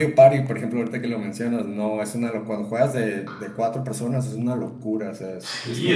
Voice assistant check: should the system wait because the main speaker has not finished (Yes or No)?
No